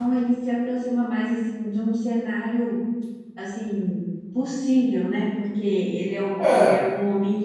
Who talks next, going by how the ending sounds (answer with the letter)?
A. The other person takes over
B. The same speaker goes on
B